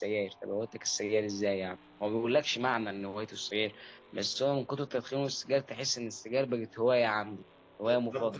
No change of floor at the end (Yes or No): No